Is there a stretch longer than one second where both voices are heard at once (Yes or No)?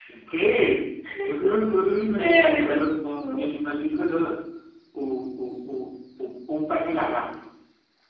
Yes